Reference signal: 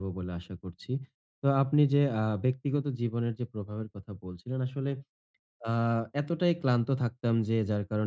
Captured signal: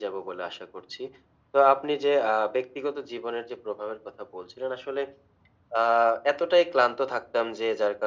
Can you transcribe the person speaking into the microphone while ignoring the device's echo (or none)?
none